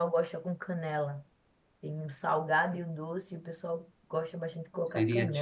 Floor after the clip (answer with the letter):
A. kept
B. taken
B